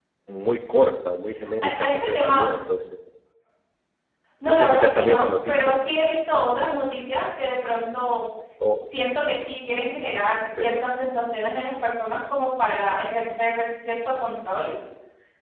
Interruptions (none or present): present